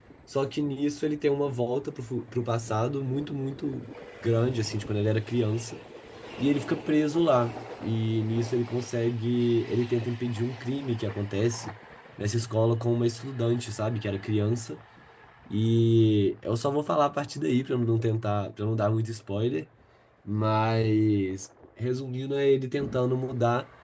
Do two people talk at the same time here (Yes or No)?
No